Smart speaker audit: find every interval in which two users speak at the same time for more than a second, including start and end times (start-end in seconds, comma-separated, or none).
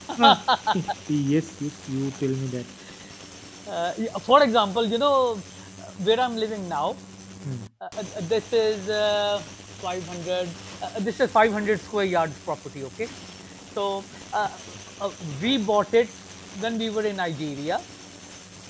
none